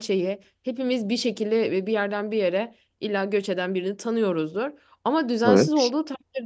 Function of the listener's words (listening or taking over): listening